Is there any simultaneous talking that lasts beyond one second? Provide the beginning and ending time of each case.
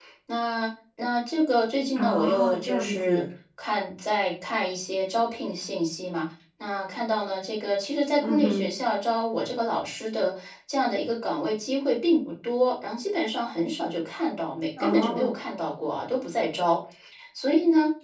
2.0-3.2

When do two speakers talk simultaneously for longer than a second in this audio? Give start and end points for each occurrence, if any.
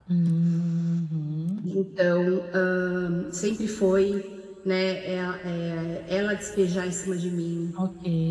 none

